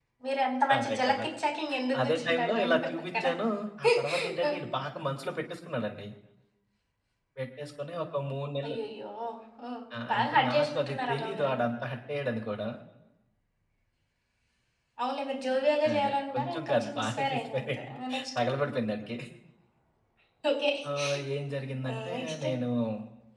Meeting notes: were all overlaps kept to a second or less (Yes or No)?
No